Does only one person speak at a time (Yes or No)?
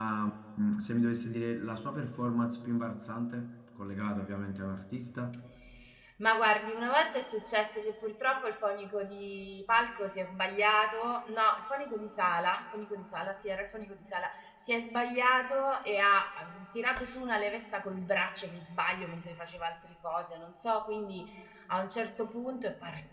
Yes